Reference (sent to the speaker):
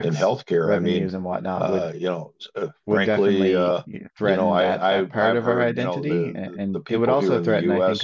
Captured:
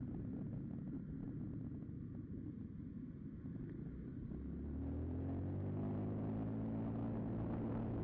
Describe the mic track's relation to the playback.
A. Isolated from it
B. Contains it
A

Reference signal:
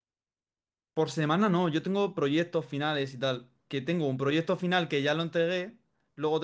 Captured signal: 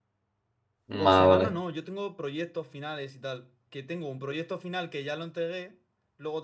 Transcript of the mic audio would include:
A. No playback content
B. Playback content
B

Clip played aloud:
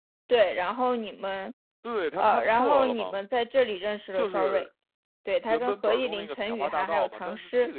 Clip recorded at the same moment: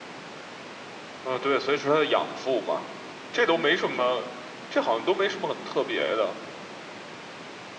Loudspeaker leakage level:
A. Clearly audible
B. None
B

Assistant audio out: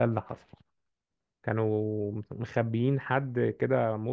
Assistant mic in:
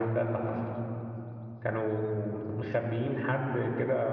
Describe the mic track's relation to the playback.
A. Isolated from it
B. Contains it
B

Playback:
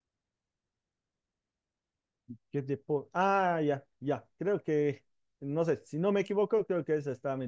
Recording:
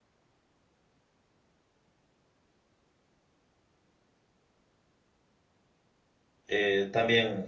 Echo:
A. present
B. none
B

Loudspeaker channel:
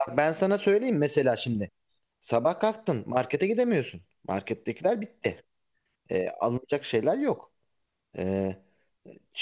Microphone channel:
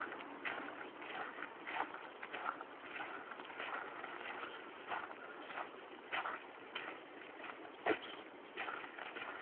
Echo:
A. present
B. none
B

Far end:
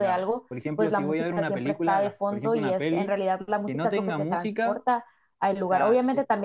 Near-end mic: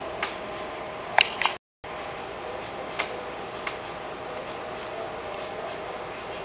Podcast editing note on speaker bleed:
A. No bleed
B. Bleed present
A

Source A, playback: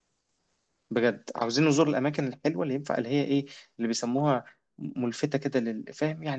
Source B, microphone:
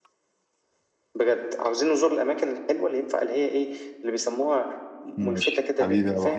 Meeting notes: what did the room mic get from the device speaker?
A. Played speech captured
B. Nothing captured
A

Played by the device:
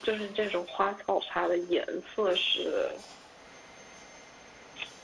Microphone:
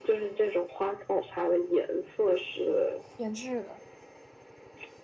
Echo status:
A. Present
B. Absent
A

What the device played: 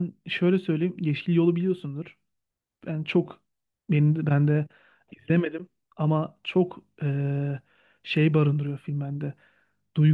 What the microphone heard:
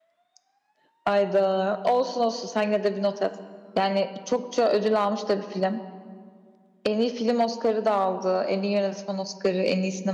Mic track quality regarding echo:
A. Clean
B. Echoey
A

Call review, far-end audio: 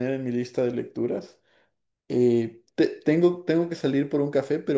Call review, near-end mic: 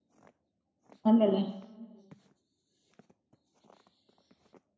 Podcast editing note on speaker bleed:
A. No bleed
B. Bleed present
A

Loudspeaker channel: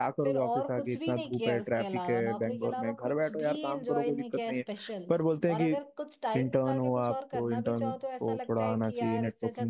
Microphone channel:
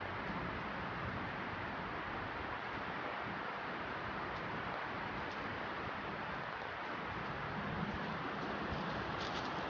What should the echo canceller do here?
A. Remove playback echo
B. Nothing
B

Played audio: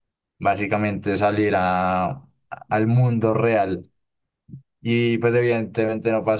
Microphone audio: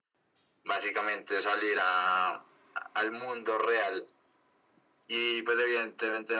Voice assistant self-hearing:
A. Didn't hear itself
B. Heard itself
B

